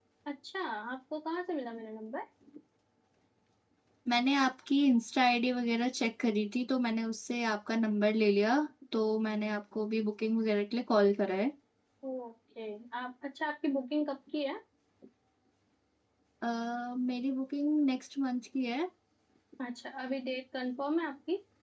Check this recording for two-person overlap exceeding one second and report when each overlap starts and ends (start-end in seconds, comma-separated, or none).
none